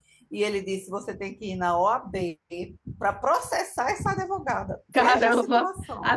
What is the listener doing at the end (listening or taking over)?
taking over